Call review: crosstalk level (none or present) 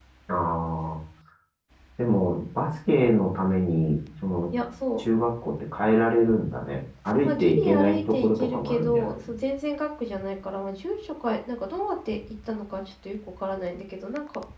present